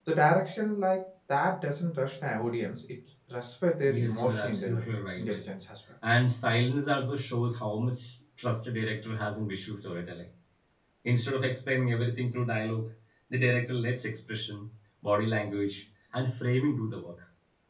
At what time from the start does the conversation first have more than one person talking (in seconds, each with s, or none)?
3.9 s